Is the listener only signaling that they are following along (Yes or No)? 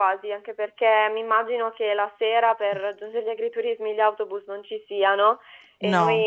Yes